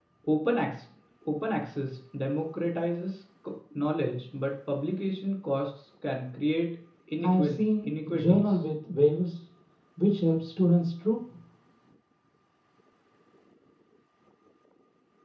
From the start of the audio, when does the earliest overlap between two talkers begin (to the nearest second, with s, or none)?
7 s